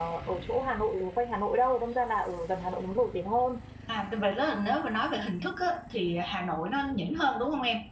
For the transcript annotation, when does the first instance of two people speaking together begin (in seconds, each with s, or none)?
none